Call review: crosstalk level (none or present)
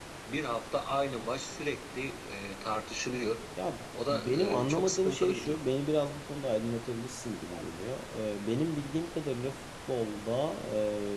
present